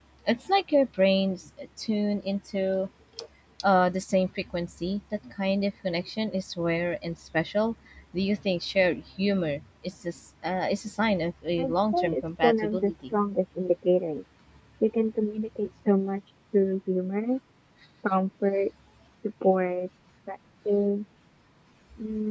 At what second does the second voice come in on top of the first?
12 s

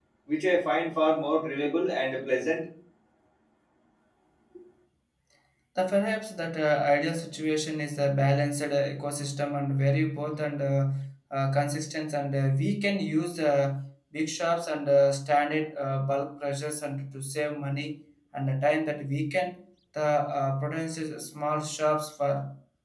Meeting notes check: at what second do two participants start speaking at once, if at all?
none

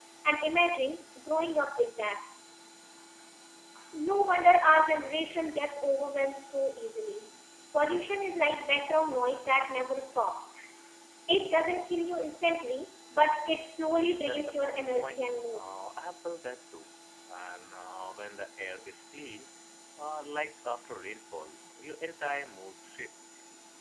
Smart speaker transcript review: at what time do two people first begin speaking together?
14 s

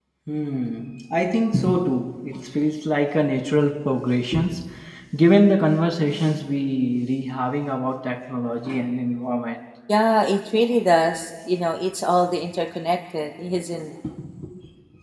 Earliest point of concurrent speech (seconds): none

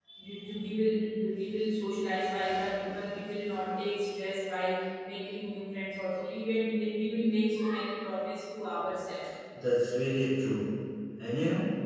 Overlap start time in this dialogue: none

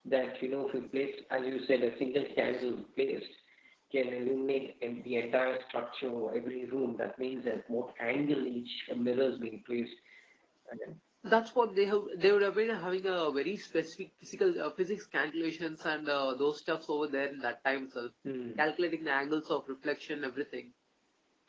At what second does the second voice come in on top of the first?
none

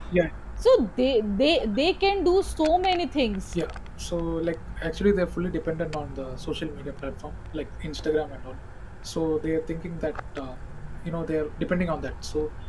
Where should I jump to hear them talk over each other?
none

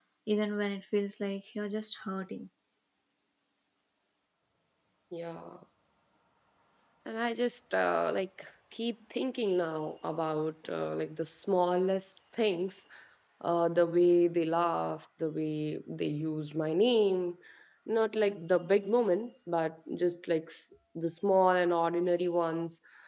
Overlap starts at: none

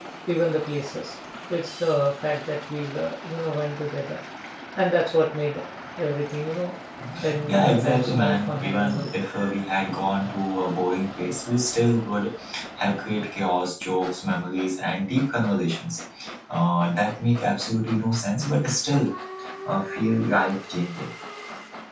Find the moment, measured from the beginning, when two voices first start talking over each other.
7 s

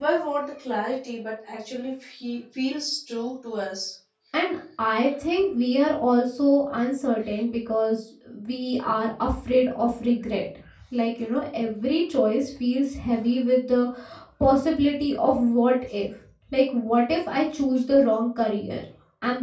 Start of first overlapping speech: none

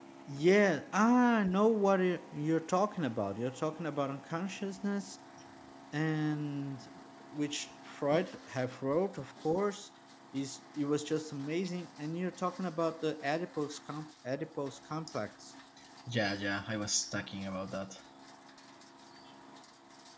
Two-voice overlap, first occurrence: none

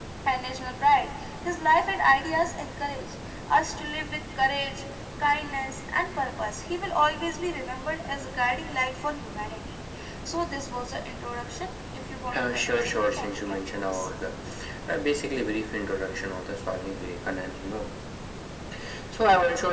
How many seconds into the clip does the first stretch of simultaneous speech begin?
12 s

